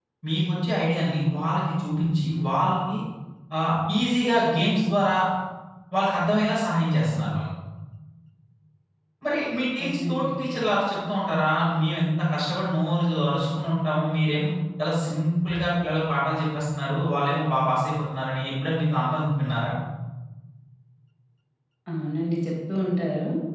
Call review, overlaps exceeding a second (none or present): none